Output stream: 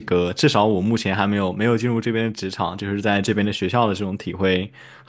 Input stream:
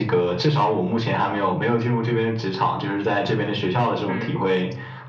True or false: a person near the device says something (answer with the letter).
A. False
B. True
B